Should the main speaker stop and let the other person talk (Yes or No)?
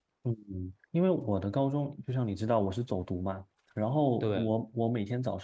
No